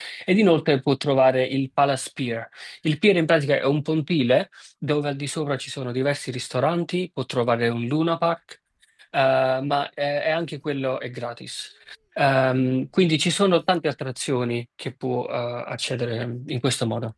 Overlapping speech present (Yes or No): No